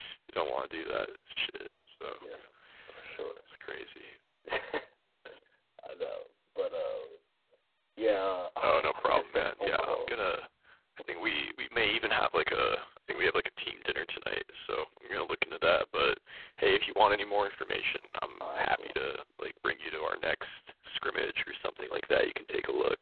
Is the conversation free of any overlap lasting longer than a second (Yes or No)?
No